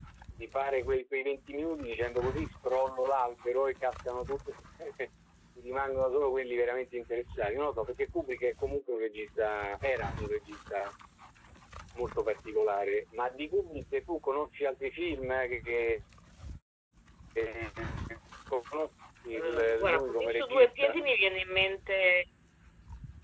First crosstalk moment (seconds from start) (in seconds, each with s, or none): 19.3 s